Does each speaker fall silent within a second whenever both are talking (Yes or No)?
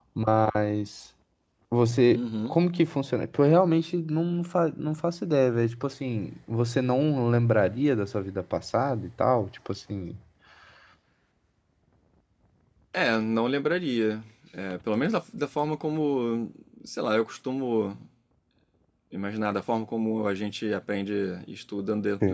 Yes